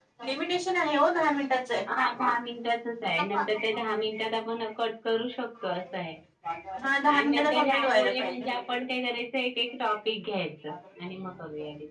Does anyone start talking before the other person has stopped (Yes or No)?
Yes